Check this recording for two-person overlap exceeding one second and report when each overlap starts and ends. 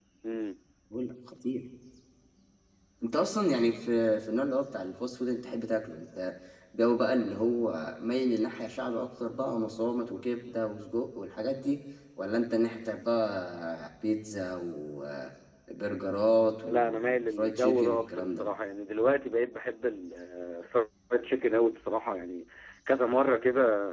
16.7-18.5

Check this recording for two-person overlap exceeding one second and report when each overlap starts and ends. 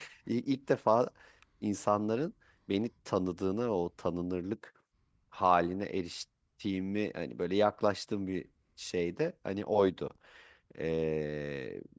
none

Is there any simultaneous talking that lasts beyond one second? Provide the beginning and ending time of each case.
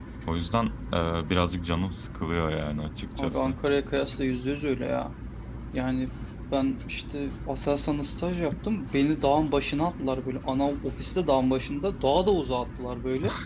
none

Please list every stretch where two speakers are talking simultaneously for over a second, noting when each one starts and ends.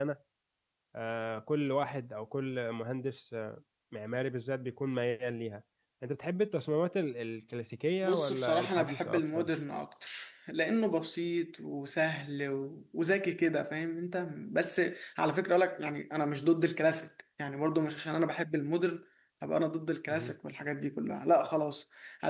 8.0-9.5

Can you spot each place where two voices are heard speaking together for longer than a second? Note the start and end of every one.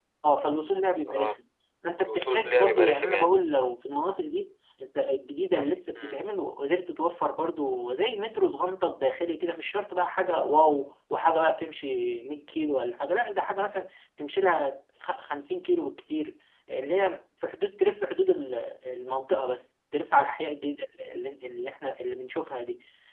2.0-3.3

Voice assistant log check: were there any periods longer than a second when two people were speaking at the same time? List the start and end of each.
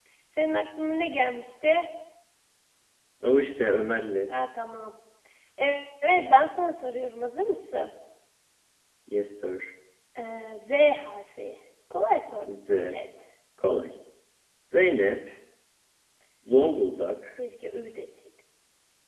none

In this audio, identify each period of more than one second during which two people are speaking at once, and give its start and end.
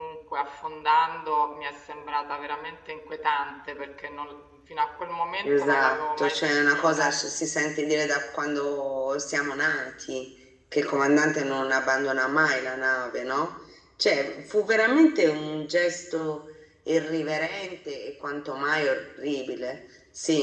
5.4-7.1

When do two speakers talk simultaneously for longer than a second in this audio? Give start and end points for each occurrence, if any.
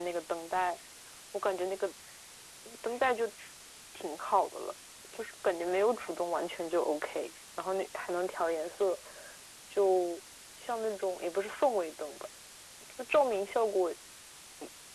none

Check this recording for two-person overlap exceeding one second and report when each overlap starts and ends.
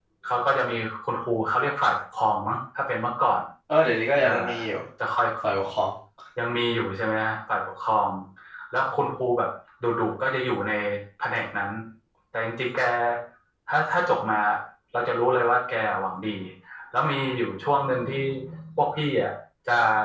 none

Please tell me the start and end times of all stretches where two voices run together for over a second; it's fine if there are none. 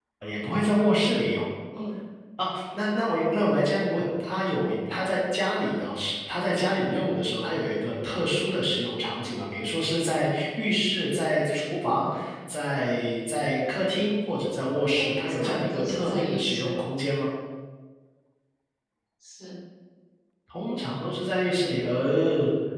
14.9-16.8

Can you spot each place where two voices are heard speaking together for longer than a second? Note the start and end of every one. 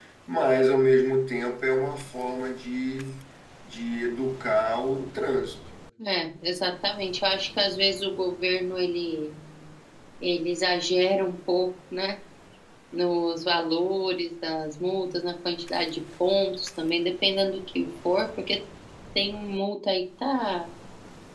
none

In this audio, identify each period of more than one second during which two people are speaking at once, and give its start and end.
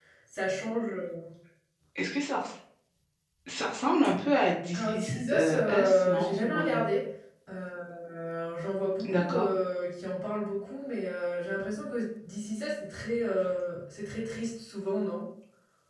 4.7-6.8

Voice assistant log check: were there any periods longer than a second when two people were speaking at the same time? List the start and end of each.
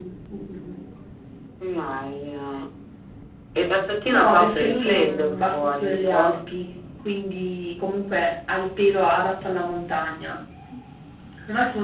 4.1-6.4

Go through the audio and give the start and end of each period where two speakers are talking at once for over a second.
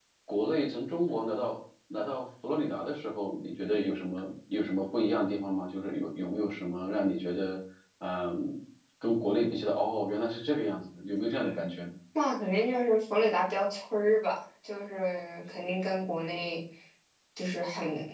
none

